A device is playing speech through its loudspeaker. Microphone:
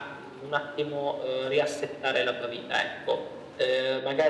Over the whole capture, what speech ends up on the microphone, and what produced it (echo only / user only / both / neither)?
echo only